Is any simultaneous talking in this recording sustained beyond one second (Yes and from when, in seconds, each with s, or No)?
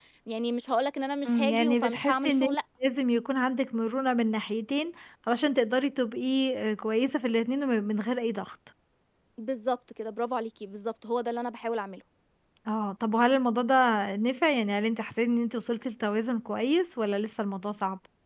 Yes, from 1.2 s